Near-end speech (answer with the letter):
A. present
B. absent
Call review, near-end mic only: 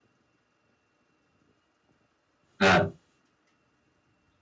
A